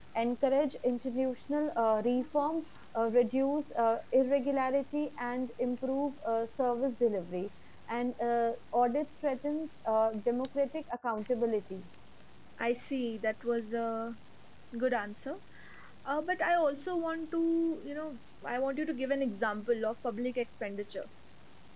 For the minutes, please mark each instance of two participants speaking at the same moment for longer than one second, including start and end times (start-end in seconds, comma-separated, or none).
none